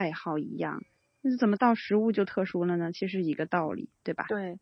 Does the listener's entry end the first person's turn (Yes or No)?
Yes